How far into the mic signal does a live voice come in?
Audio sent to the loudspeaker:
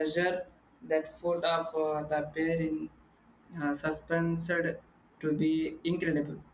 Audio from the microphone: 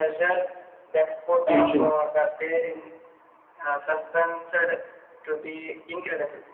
1 s

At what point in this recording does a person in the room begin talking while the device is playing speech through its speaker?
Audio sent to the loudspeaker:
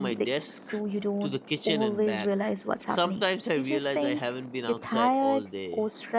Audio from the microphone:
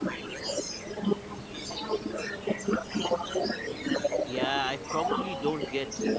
4 s

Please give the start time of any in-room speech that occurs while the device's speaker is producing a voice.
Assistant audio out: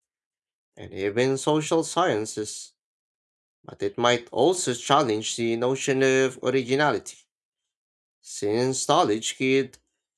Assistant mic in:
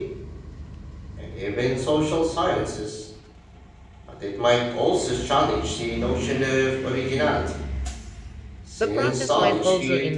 9 s

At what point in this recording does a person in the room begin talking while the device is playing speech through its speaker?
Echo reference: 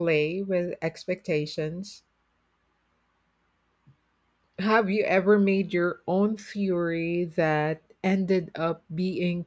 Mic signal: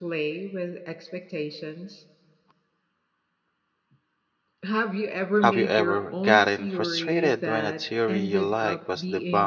5 s

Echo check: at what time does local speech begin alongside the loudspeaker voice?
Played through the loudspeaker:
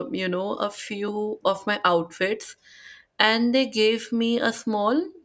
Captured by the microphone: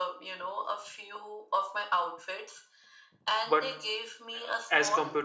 3 s

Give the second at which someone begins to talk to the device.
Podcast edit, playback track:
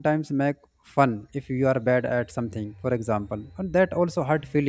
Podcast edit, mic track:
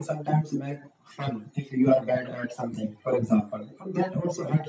none

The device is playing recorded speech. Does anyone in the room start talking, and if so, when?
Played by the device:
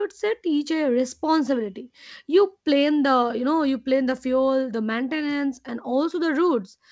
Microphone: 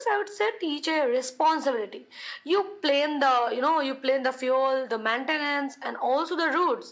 none

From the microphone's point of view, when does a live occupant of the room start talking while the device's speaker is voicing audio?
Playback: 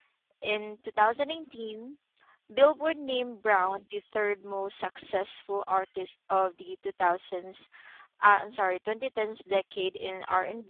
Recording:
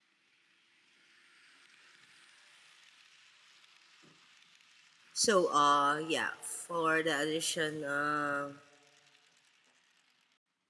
5 s

